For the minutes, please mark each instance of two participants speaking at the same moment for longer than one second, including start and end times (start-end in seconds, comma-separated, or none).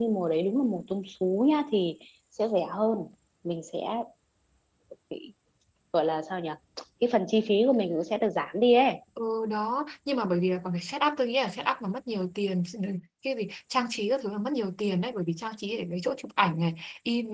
none